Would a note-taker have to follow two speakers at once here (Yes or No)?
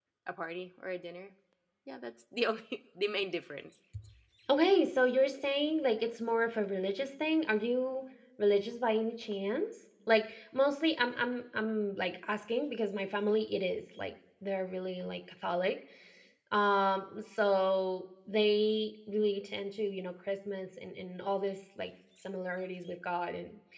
No